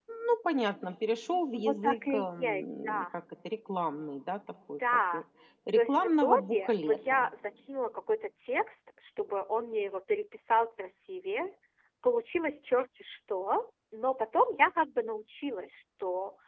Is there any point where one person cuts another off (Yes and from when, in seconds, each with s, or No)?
Yes, from 1.5 s